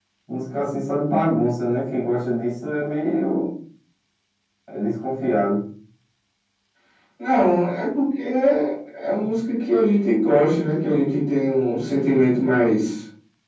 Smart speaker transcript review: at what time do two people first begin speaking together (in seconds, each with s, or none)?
none